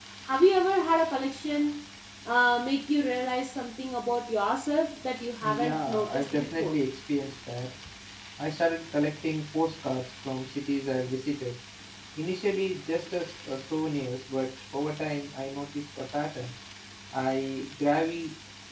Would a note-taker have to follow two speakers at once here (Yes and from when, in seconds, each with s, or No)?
Yes, from 5.4 s